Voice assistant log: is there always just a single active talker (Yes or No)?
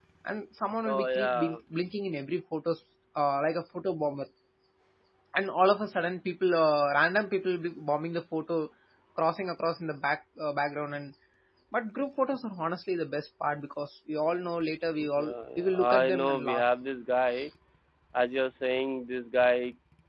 No